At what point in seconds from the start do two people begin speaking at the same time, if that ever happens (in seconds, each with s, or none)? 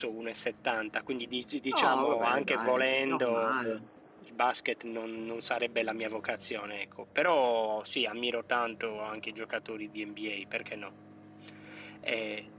1.7 s